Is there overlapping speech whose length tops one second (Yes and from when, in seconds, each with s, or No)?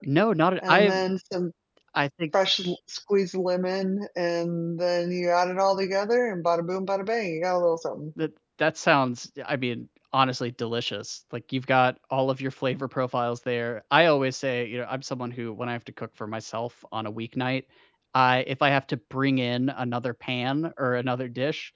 No